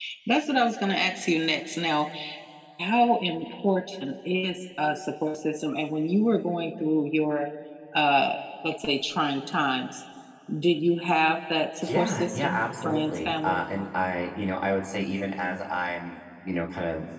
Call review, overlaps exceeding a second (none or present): present